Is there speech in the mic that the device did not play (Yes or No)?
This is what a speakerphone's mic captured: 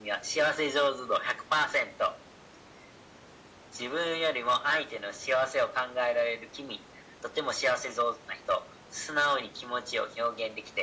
No